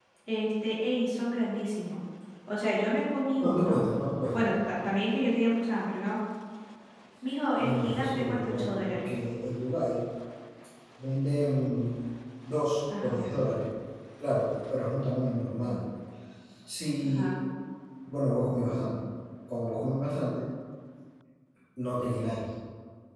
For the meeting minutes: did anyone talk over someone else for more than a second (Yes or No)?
Yes